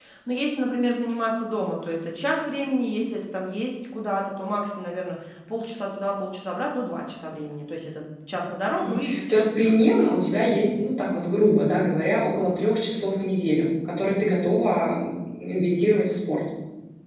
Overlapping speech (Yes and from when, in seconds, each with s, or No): Yes, from 8.8 s